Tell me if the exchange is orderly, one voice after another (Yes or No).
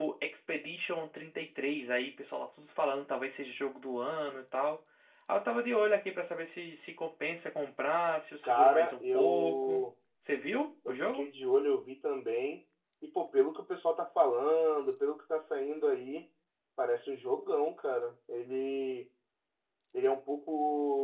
No